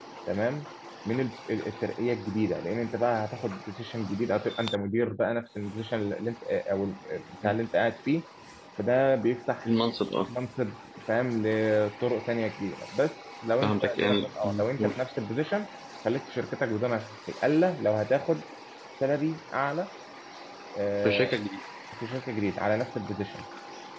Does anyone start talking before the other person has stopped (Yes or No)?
Yes